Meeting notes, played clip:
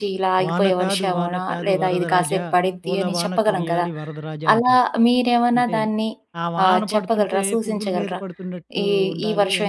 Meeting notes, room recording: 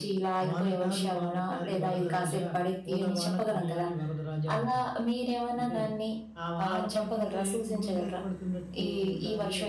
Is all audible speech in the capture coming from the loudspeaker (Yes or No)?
Yes